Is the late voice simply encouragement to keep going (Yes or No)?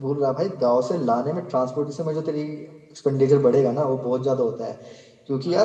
Yes